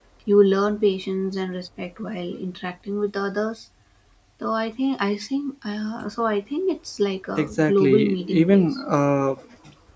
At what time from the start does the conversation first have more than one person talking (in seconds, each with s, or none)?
7.4 s